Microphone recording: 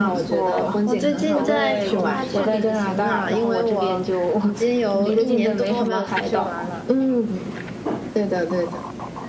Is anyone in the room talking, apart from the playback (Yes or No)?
Yes